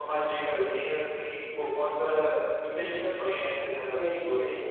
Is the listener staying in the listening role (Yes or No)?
No